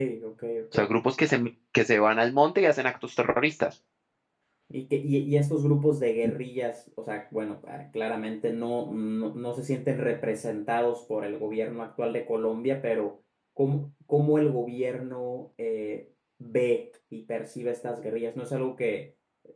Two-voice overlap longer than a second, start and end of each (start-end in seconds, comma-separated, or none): none